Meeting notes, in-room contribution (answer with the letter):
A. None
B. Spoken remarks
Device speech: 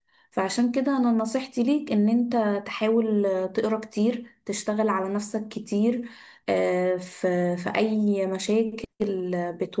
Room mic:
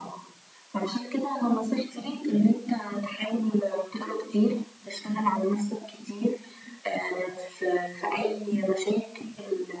A